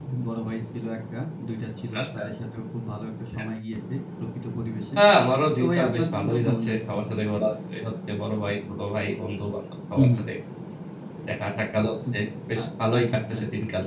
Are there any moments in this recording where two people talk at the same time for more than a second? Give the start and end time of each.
5.6-6.9

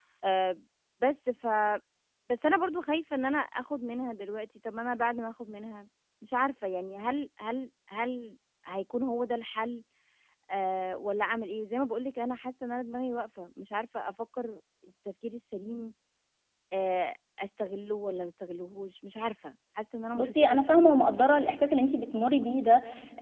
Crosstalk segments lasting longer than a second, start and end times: 20.1-21.6

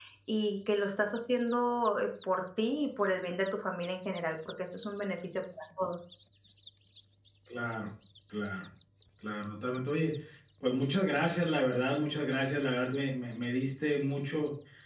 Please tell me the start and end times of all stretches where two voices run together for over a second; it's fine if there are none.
none

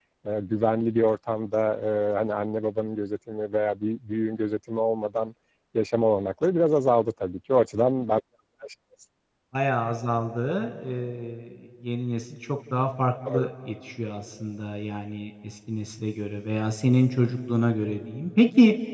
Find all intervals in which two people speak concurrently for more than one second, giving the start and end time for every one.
none

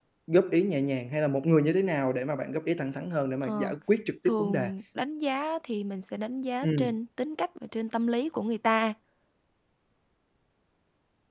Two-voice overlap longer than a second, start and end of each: none

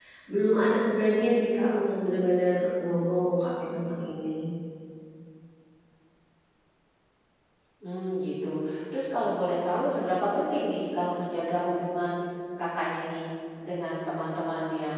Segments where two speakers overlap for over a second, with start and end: none

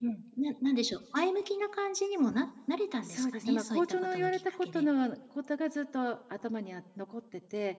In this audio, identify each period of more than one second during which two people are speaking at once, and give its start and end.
3.0-4.9

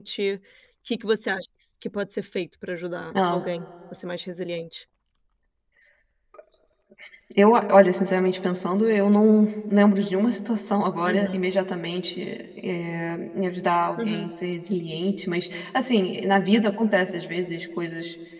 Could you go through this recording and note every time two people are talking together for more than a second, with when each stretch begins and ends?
none

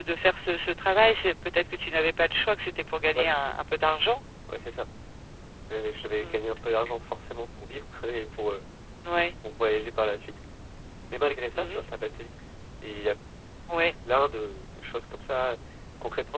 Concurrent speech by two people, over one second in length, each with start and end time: none

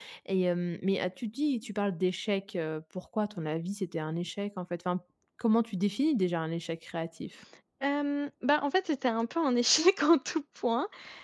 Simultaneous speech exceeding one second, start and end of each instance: none

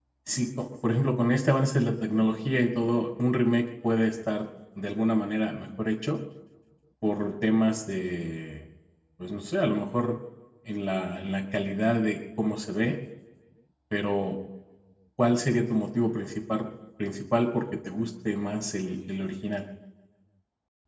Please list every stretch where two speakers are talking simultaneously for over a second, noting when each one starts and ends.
none

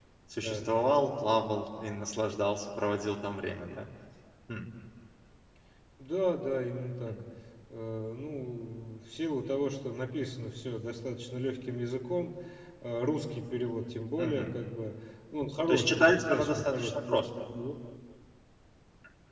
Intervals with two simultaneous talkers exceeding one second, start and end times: 15.7-17.2

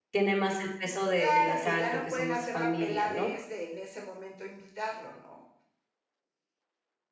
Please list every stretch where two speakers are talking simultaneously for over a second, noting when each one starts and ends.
1.2-3.3

